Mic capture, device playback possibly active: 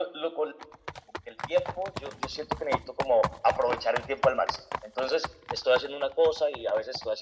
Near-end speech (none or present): none